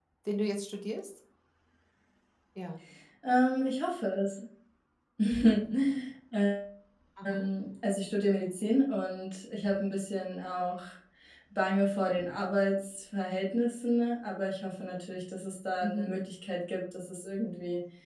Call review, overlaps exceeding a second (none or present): none